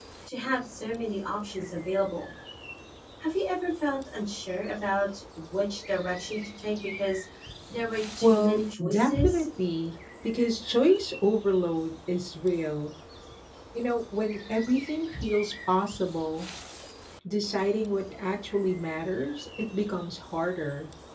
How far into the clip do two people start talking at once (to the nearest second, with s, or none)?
8 s